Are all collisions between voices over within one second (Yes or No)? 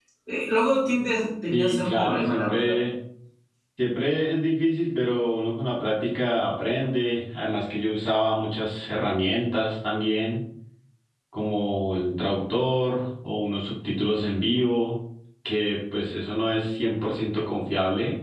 No